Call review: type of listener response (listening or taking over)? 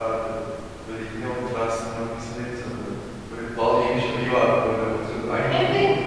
taking over